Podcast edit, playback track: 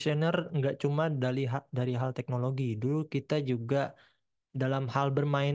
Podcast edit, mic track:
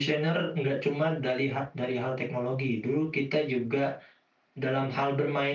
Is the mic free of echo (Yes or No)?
No